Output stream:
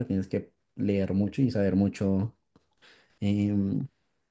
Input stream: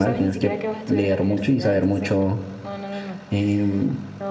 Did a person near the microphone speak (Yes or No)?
Yes